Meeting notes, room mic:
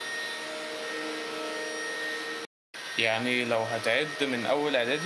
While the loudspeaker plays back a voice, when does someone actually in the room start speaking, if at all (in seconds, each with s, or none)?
3.0 s